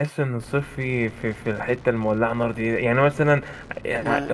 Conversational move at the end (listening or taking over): listening